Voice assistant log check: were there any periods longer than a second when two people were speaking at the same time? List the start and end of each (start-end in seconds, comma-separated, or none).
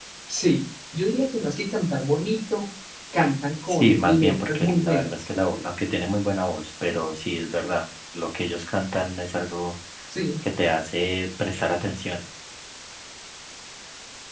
3.7-5.1